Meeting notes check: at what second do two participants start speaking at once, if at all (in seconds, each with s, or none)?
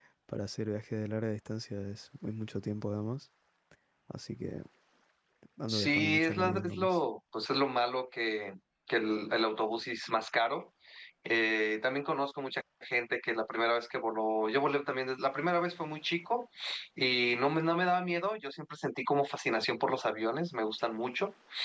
5.7 s